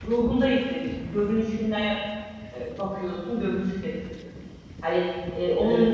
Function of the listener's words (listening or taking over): listening